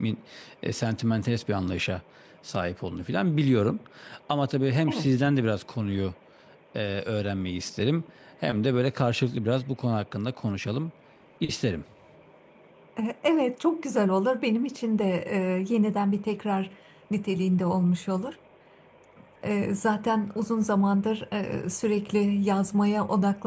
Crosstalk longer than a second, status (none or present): none